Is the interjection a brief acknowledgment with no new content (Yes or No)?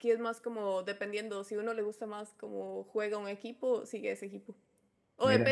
Yes